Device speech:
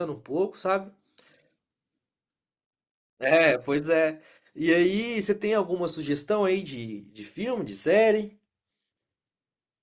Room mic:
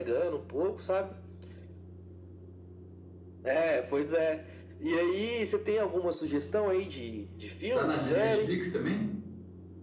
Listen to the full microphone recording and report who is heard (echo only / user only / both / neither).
both